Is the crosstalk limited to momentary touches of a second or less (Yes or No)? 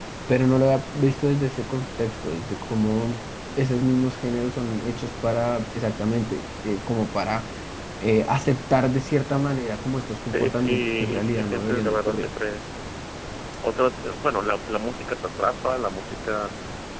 No